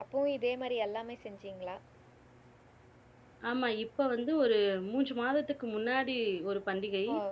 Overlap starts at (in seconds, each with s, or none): none